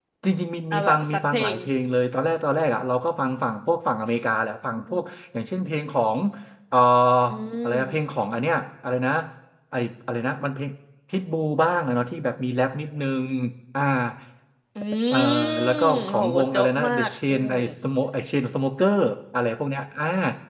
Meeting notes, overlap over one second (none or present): present